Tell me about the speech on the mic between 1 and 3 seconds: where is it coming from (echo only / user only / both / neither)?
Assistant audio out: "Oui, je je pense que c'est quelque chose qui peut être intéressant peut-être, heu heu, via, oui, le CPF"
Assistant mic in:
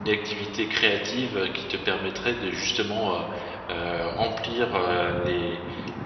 user only